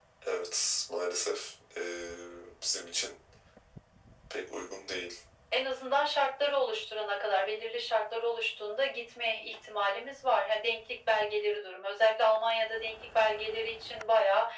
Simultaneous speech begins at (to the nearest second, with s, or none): none